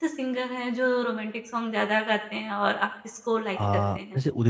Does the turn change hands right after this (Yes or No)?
Yes